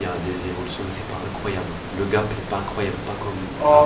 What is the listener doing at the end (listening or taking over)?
taking over